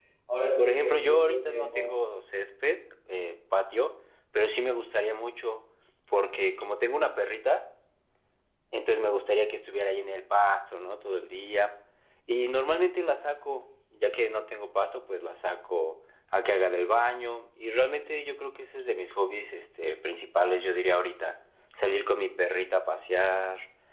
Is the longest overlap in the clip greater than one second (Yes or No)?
Yes